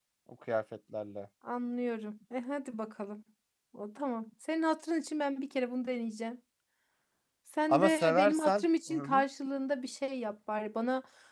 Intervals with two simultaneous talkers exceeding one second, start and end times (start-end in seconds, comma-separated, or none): 7.7-9.2